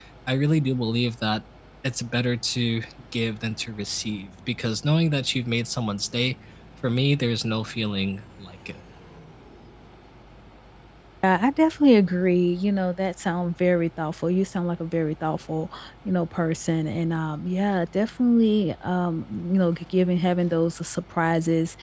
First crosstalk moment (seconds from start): none

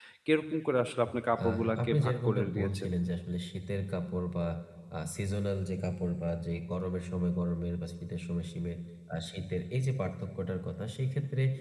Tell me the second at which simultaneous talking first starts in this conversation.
1.4 s

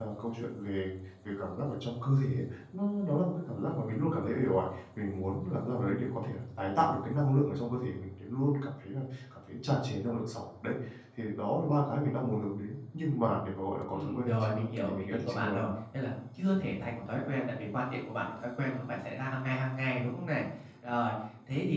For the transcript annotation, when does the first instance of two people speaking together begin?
13.9 s

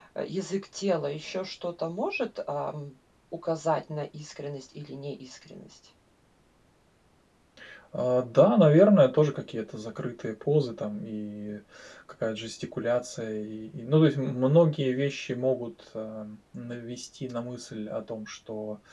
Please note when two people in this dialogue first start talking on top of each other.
none

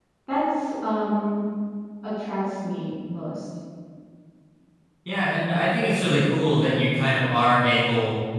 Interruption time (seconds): none

